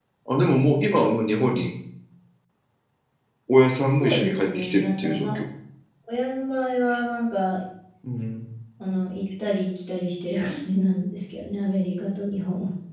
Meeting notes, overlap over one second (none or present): present